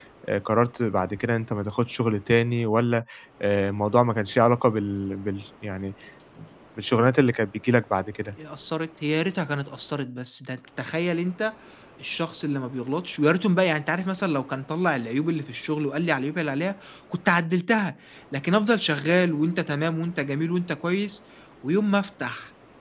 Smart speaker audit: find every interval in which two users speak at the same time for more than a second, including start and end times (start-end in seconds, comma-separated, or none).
none